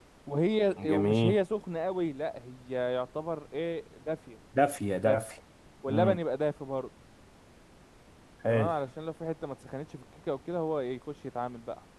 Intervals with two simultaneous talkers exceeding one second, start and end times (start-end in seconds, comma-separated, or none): none